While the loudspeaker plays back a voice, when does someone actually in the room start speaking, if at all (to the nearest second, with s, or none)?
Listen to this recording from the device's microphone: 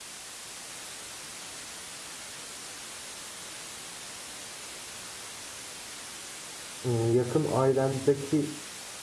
7 s